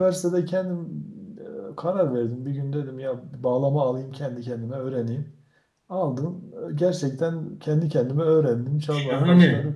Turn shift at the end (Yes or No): Yes